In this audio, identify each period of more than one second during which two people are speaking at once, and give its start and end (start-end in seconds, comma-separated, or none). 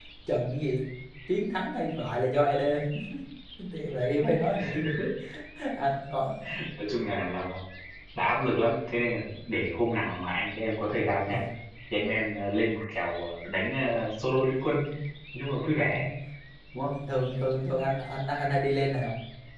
none